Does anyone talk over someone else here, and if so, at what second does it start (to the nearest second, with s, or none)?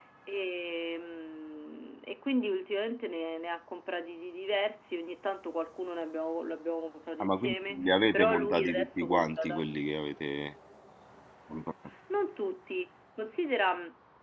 7 s